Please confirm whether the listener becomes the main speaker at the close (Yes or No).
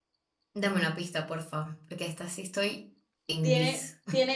Yes